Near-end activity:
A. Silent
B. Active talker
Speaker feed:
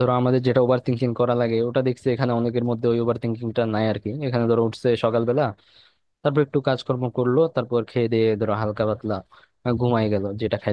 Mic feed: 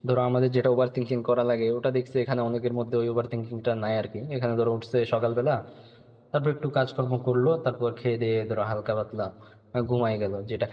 A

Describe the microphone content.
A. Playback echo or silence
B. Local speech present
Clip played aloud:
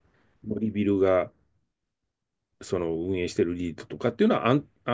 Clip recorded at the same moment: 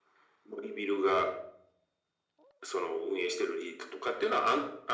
A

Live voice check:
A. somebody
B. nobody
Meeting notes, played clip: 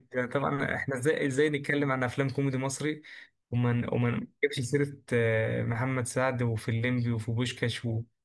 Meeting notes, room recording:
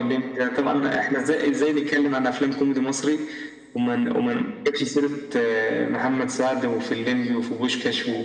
B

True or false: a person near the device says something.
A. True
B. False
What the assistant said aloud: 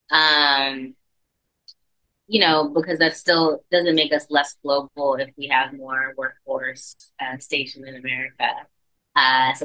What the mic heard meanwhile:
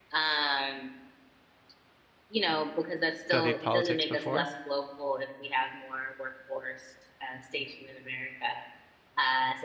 A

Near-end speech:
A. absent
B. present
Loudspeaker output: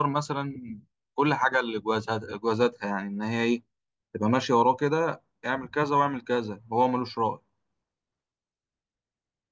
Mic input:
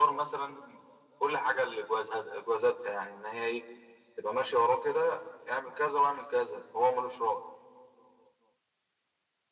A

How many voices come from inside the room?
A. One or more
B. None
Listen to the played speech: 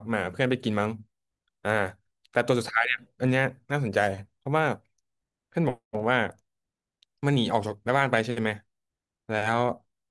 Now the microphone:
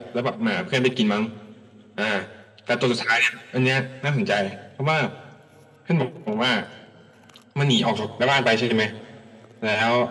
B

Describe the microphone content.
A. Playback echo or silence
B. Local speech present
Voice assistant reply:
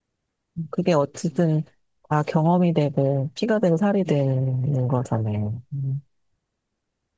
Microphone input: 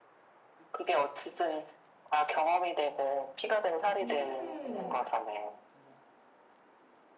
B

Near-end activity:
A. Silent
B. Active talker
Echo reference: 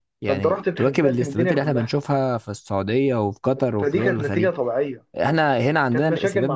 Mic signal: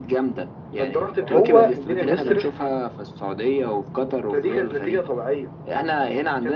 B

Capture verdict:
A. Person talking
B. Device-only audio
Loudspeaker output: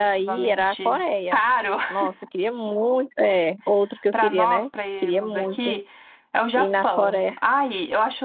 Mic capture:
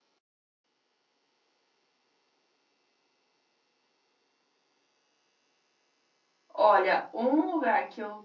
A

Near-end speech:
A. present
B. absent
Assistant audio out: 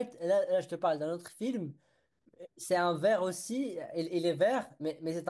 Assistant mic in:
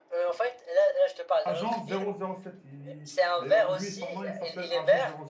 A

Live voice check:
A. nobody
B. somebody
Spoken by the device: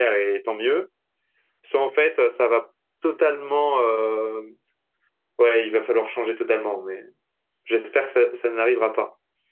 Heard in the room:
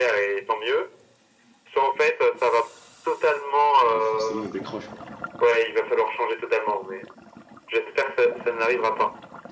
B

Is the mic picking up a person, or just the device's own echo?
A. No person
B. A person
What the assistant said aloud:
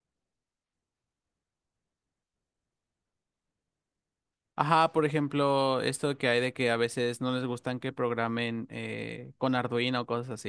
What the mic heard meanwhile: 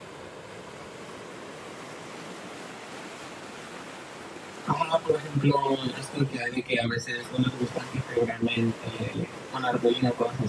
A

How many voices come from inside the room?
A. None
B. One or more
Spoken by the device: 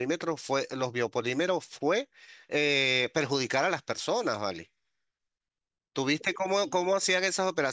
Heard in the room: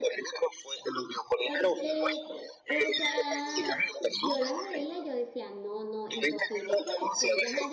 B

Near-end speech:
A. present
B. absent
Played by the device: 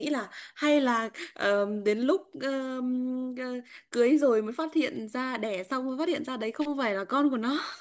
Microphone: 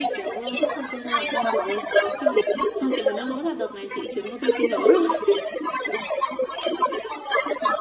A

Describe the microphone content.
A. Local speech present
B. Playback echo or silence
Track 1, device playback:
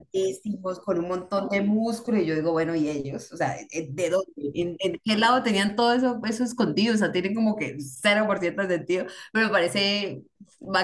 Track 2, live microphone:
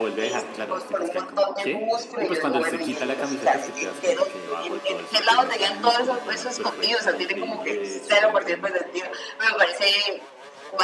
A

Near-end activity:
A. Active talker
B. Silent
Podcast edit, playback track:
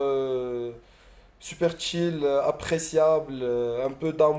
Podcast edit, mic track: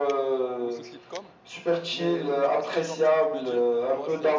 A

